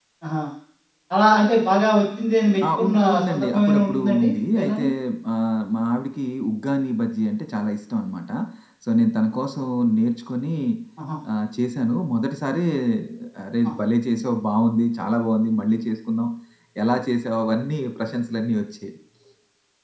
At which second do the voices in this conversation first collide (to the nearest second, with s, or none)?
3 s